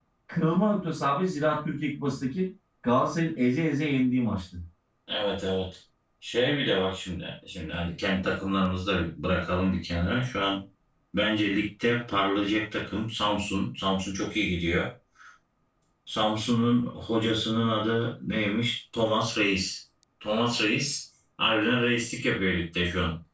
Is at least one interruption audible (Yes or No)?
No